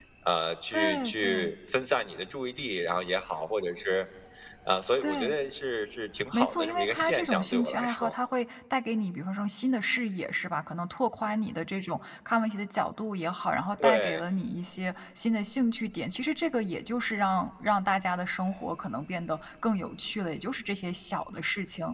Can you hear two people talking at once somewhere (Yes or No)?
Yes